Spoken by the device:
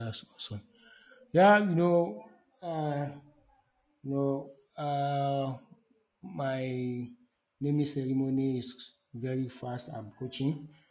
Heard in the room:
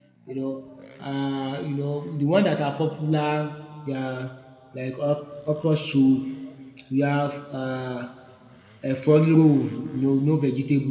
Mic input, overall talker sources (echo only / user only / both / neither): user only